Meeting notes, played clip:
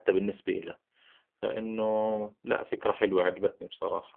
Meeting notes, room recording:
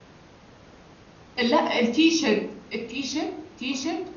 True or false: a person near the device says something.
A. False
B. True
B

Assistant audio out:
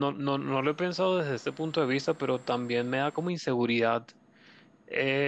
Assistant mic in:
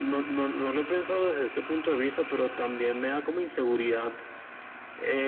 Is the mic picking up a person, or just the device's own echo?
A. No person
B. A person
A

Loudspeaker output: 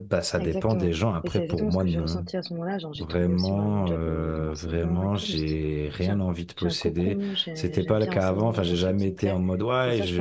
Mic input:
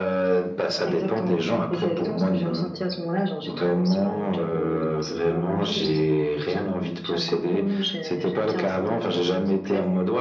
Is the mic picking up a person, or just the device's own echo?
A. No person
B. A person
A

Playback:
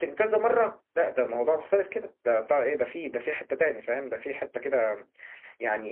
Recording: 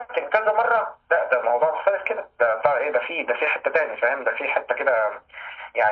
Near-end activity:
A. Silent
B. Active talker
A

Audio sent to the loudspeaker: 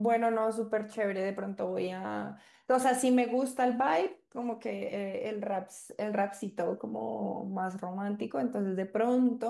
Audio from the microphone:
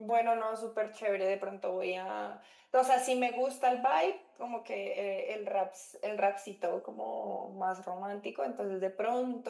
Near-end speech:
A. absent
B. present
A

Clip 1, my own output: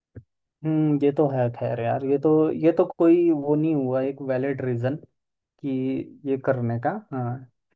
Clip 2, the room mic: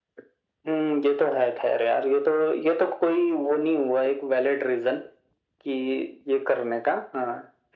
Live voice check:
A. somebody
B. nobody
B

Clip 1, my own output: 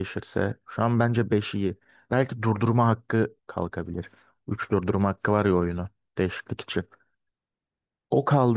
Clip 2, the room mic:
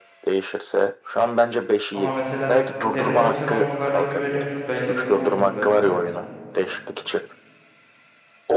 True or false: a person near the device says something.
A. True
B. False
A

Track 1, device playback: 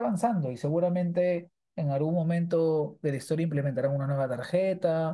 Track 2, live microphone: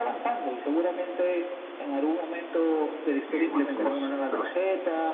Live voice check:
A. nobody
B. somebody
B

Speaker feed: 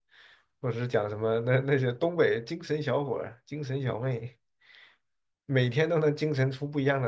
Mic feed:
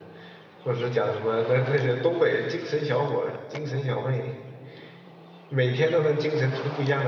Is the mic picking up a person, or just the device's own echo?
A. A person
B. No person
B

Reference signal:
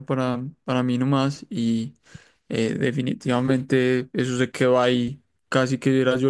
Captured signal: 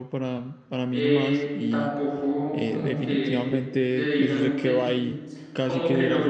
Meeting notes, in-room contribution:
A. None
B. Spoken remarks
B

